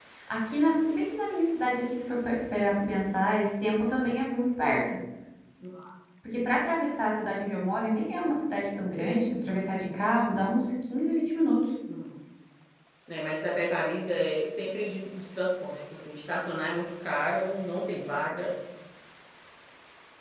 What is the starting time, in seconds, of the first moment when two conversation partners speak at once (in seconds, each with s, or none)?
none